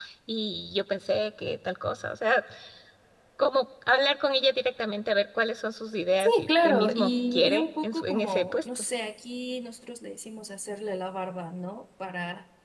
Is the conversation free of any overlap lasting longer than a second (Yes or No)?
No